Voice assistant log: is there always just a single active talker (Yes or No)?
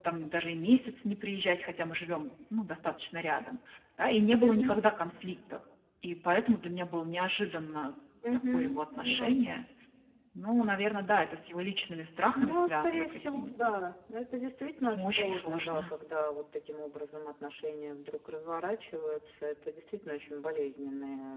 No